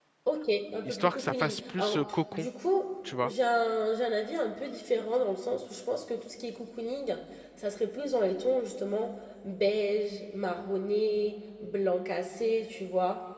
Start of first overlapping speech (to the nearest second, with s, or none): 1 s